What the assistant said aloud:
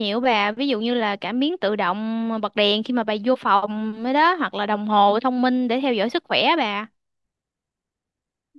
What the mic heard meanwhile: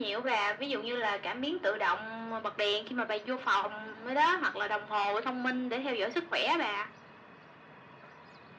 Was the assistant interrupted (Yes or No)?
No